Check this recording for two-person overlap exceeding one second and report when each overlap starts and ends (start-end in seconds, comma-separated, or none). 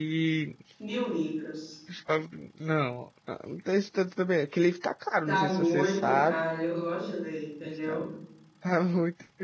5.3-6.5